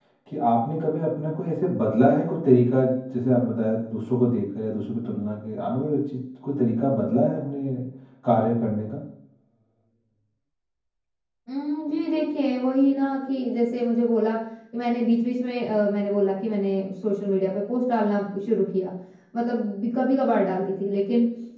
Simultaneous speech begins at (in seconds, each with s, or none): none